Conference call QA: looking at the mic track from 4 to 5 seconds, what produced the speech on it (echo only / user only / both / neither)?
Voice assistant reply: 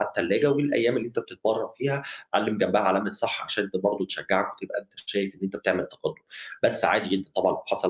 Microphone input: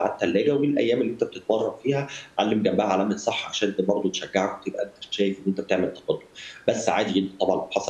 echo only